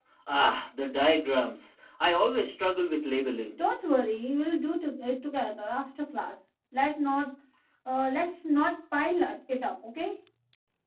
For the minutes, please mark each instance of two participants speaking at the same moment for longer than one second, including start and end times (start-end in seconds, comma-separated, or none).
none